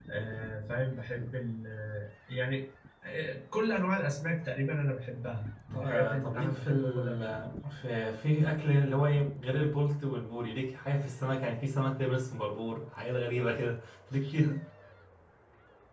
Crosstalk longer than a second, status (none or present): present